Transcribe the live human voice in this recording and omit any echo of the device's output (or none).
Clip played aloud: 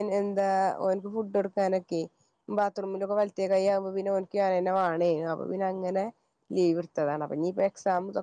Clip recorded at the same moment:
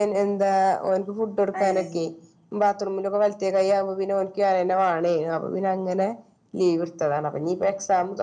വയറിംഗ്